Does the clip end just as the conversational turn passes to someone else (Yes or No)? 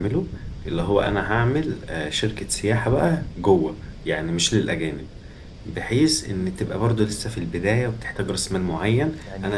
No